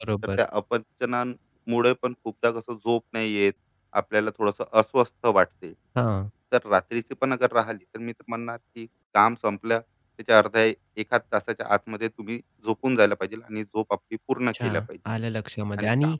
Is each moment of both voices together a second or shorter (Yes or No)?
Yes